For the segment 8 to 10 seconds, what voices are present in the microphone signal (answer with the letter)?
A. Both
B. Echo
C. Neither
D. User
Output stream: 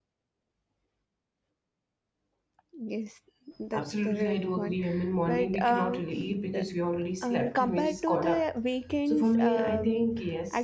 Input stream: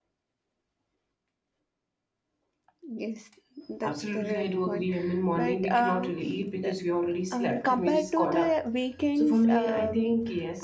B